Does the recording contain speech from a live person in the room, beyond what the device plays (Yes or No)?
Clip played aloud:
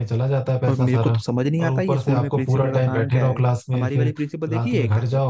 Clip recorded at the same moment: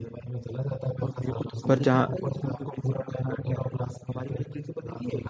Yes